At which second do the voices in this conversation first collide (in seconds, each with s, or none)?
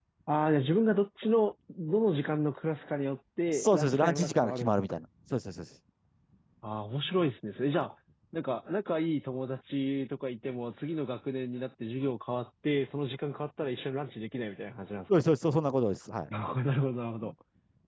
3.5 s